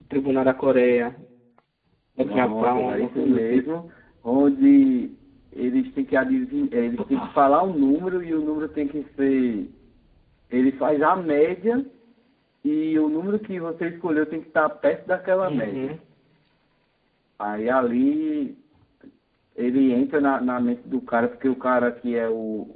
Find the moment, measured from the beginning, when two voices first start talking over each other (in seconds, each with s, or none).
2.2 s